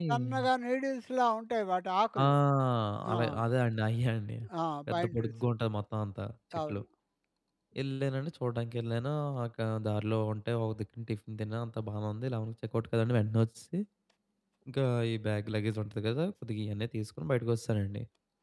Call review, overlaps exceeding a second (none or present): none